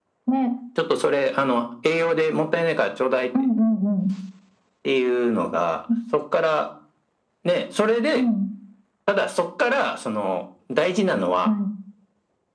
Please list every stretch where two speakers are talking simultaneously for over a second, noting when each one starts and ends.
none

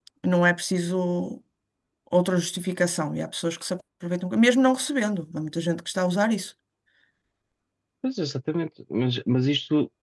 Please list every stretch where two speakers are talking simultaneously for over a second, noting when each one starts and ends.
none

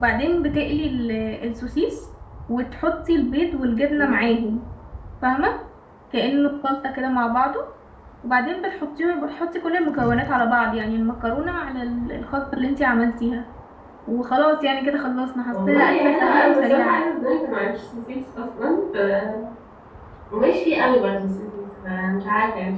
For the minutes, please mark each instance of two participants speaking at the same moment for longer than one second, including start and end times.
15.5-17.0

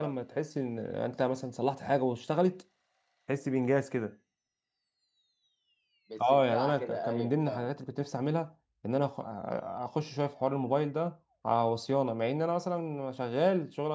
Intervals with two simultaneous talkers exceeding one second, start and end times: 6.2-7.7

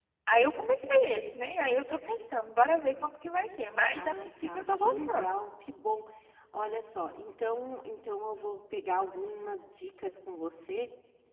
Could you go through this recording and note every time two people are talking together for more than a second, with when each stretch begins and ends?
3.9-5.3

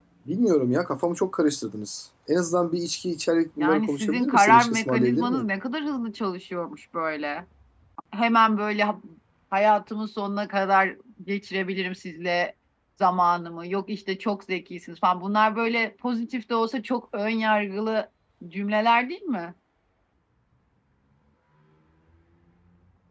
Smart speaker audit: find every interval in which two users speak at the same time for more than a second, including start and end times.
3.6-5.4

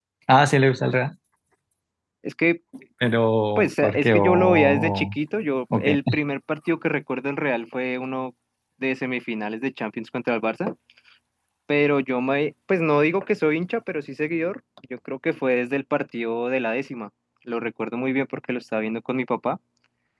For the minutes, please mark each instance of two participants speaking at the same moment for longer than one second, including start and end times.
3.6-5.2

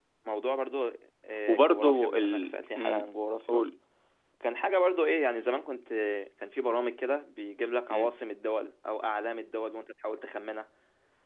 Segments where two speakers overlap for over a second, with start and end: 1.5-3.0

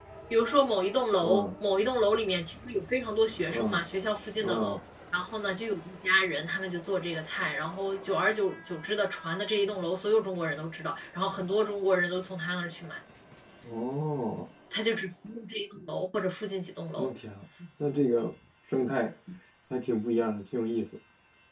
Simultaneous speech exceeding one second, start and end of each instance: none

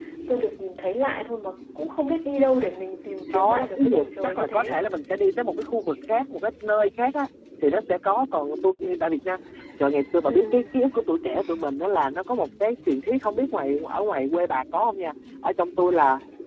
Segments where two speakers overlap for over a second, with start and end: 3.3-4.8

